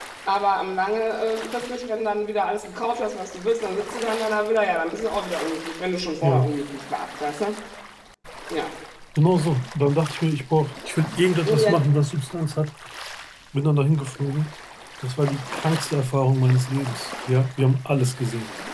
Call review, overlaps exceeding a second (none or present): none